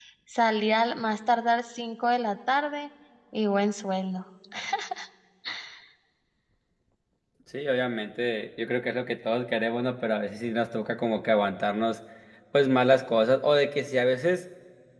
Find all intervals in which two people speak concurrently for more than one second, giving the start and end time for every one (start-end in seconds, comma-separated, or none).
none